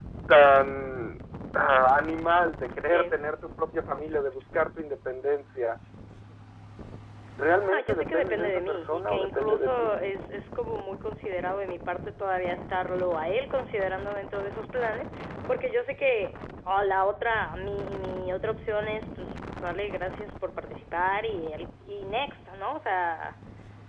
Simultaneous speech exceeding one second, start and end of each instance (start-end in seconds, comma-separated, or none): 7.7-9.9